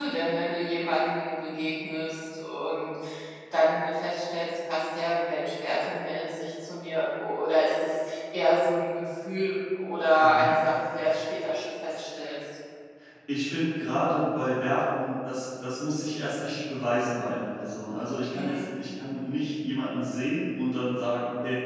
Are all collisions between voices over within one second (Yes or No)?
Yes